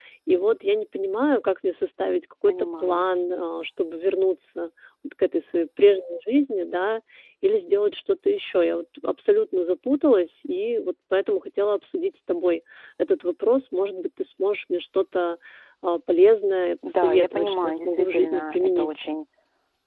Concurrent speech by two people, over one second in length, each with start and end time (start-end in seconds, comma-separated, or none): 16.9-18.9